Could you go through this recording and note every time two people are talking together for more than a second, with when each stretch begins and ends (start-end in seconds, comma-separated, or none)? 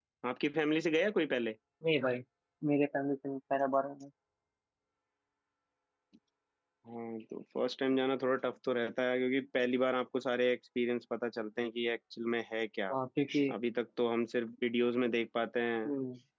none